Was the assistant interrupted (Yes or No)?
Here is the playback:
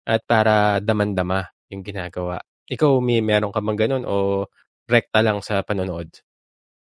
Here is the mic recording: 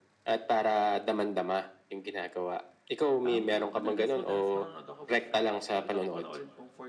Yes